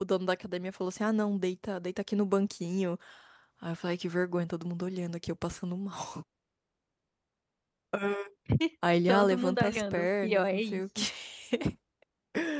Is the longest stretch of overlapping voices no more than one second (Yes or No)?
No